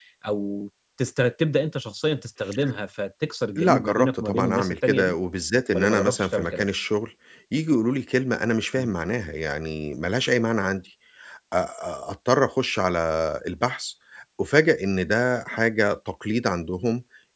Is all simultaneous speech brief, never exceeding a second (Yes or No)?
No